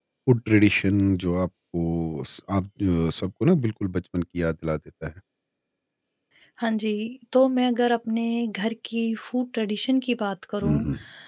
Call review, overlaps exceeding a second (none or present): none